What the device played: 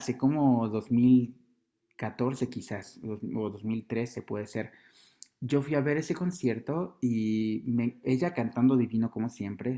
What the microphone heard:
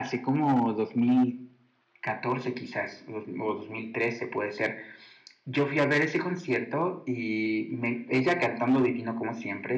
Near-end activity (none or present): none